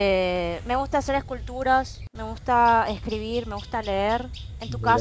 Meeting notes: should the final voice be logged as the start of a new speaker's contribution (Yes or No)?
Yes